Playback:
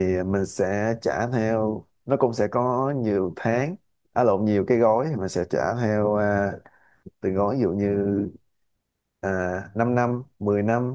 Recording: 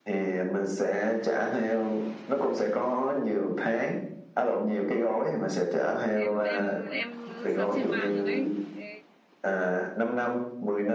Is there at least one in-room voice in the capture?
Yes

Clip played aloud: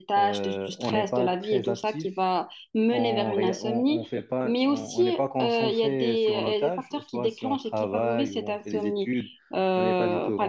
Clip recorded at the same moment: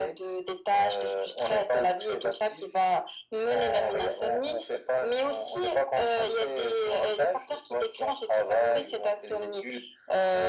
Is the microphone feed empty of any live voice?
Yes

